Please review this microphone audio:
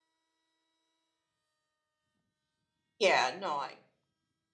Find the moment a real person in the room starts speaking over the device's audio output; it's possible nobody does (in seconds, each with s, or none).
3.0 s